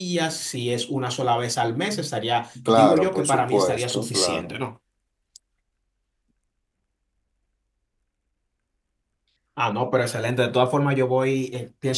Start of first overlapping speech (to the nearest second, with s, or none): 3 s